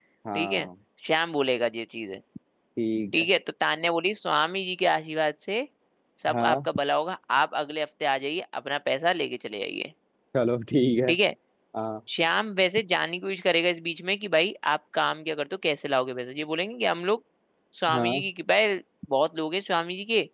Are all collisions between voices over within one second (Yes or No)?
Yes